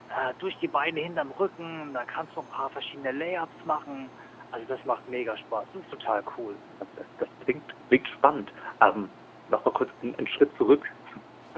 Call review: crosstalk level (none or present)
none